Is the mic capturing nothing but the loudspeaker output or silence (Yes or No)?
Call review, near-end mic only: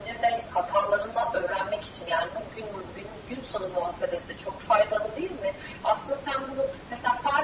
Yes